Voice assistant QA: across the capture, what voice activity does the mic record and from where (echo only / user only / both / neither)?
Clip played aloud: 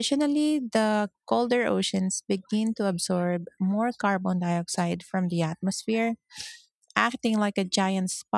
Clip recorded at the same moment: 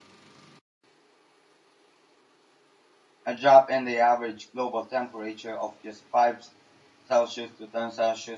user only